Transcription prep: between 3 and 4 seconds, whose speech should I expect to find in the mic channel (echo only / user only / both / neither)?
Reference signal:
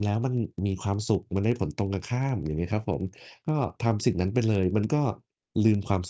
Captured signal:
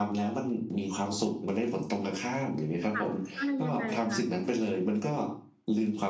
both